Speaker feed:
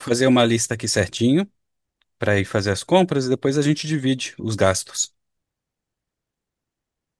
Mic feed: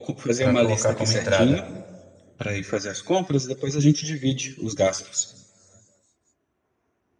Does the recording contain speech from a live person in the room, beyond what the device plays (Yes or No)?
Yes